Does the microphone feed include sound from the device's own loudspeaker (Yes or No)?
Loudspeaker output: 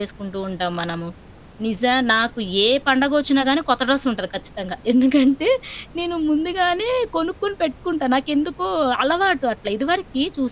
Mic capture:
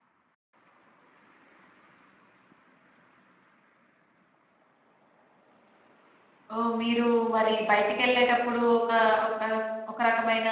No